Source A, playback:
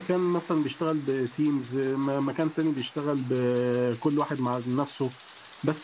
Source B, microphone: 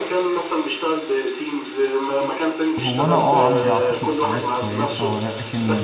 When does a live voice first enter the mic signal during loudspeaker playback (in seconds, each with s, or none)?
2.8 s